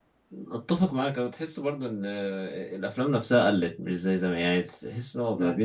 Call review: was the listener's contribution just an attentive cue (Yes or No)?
Yes